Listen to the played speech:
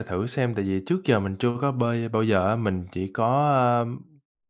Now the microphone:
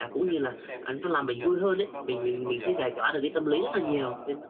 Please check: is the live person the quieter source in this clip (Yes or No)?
No